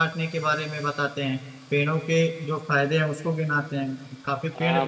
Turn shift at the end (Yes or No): Yes